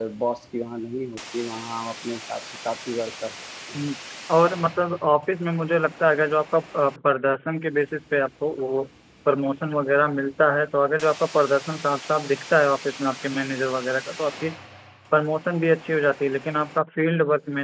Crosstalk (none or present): none